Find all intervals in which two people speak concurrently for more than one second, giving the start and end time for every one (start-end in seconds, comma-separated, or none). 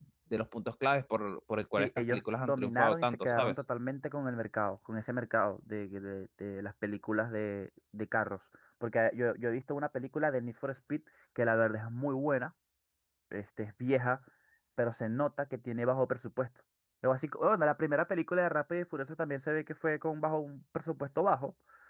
1.8-3.5